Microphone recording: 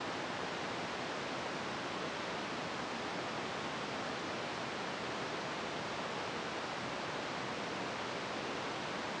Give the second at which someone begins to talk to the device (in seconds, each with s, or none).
none